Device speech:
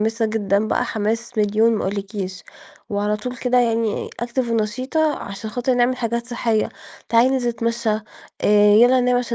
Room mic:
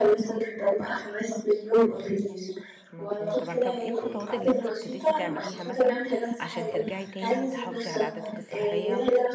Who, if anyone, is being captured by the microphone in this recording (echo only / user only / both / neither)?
both